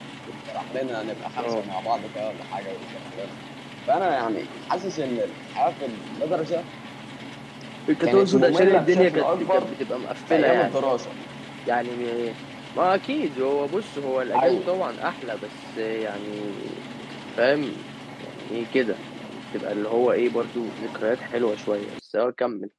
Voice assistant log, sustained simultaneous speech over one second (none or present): present